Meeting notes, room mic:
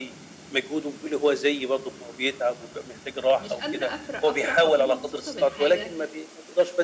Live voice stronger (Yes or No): No